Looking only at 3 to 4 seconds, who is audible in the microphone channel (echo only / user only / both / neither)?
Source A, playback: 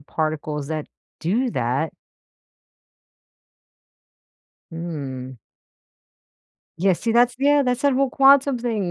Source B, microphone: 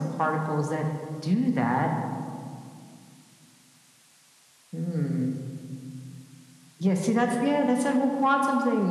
neither